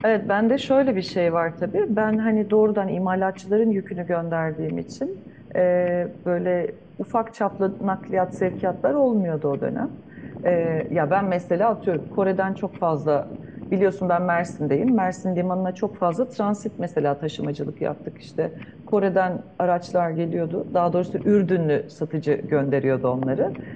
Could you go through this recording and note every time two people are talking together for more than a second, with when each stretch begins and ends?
none

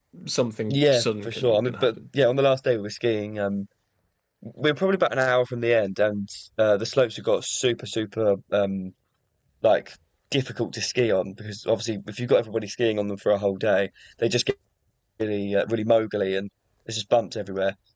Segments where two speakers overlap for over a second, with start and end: 0.7-1.9

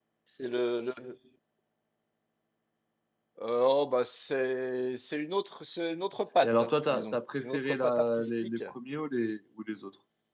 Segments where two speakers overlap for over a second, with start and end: 6.4-8.6

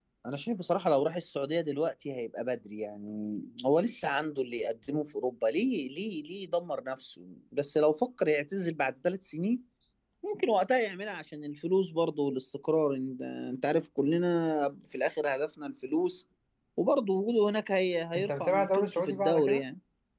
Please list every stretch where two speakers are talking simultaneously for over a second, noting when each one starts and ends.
18.1-19.6

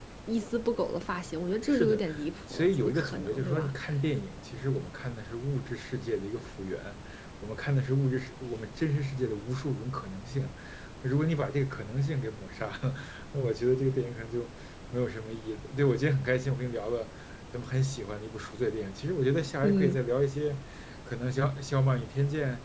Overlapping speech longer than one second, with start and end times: 2.5-3.7

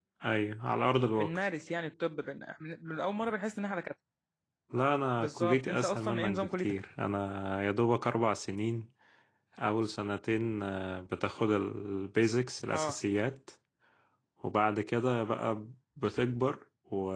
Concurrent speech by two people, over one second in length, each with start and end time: 5.2-6.8

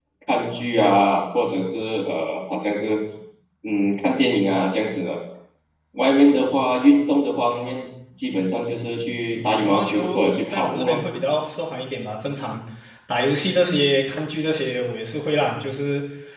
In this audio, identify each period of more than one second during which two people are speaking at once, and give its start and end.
9.3-11.0

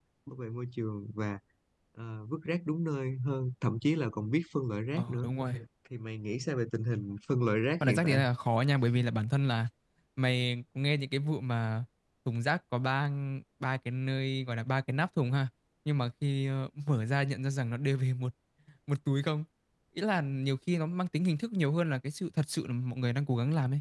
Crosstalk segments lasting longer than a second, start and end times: none

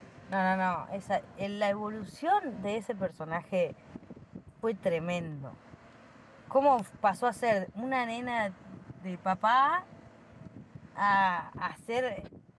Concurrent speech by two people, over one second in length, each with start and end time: none

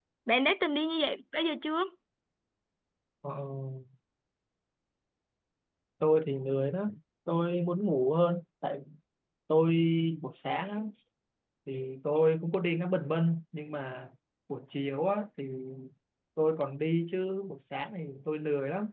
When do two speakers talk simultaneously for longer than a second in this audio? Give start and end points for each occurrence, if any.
none

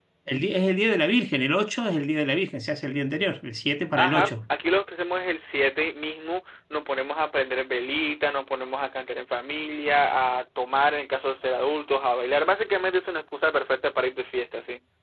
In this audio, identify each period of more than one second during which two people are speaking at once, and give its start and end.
none

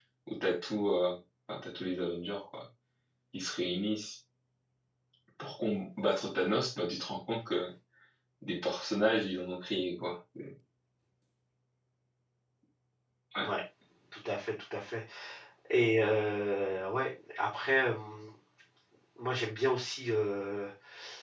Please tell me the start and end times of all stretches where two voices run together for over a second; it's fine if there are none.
none

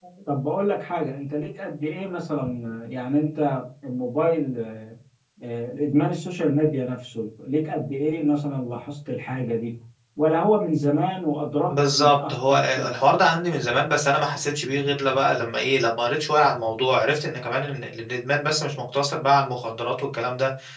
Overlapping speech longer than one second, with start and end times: 11.7-13.0

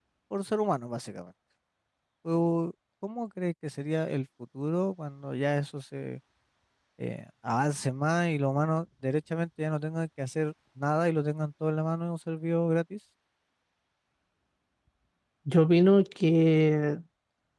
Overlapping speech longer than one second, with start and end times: none

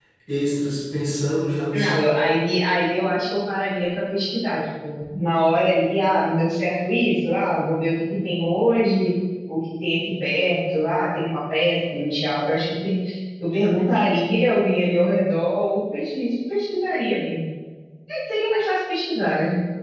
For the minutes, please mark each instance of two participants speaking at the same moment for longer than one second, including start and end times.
none

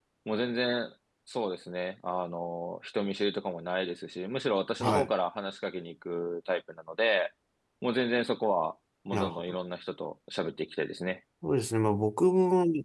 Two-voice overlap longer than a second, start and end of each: none

